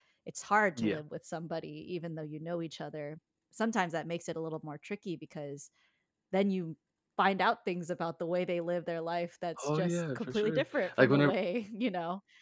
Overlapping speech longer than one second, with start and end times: 9.6-11.3

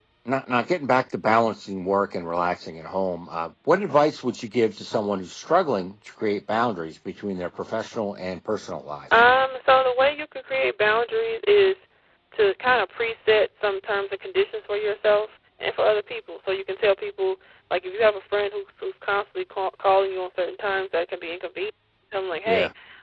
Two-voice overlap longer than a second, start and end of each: none

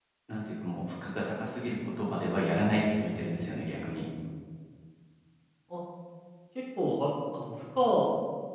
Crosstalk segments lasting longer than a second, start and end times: none

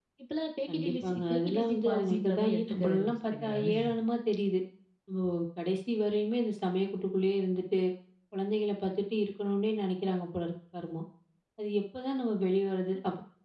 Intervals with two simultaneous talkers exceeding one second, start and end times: 0.7-3.7

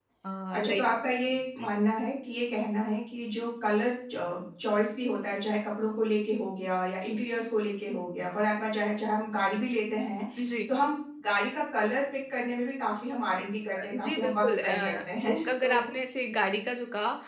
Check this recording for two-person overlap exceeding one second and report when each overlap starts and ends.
13.9-15.9

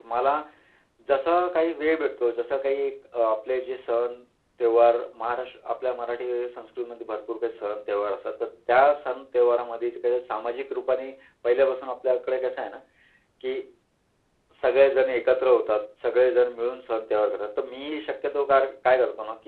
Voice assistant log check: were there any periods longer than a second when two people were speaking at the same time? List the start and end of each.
none

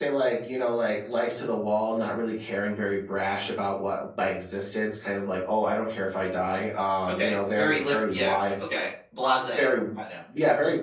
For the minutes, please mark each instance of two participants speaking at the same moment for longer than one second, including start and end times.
7.1-8.6

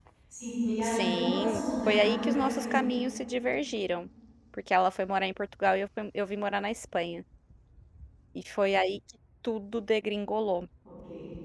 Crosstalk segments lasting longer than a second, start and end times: 0.8-2.8

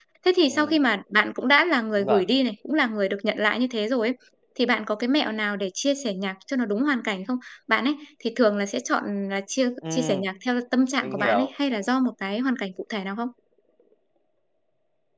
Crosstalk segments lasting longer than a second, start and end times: none

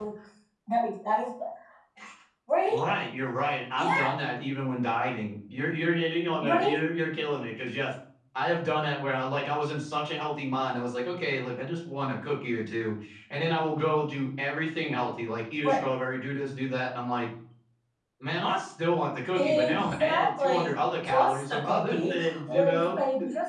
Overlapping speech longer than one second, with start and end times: 19.4-23.0

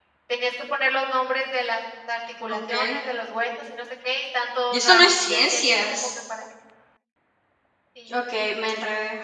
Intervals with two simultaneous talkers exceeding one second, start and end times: 4.7-6.1

